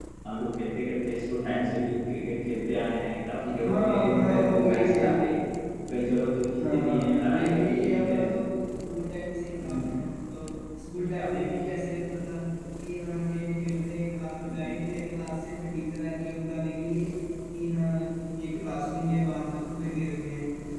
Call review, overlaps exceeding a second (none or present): present